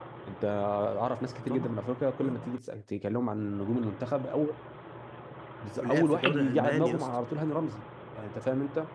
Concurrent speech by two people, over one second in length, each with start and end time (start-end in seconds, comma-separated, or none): 5.8-7.1